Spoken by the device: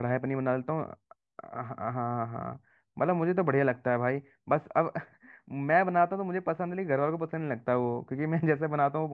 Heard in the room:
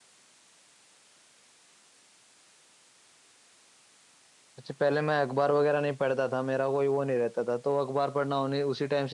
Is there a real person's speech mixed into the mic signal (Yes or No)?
Yes